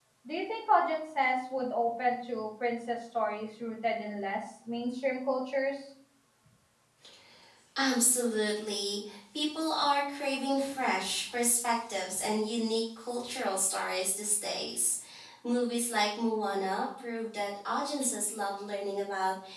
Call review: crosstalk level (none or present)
none